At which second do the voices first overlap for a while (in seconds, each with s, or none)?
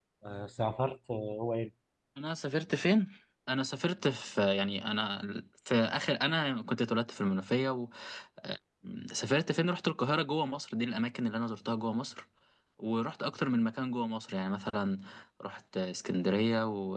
none